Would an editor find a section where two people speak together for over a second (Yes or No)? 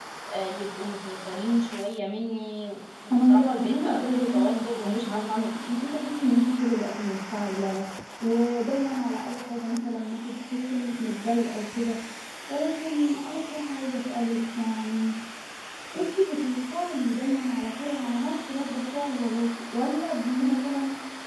Yes